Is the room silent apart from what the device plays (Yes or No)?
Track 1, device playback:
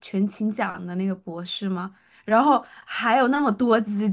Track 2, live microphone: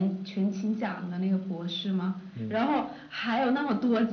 No